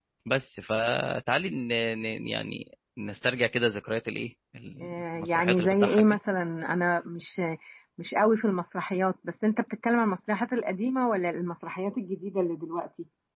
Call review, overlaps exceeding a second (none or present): present